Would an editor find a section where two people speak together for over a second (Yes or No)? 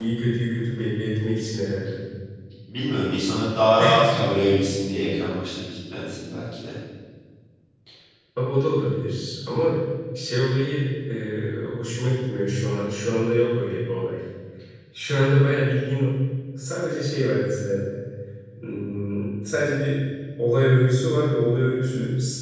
No